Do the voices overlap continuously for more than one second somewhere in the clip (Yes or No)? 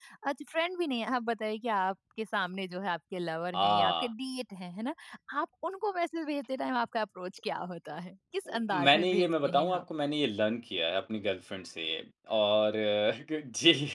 Yes